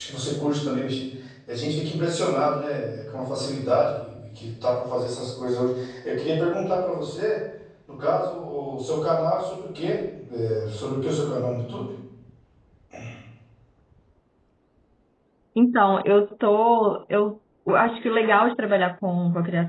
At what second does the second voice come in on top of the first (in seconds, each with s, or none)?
none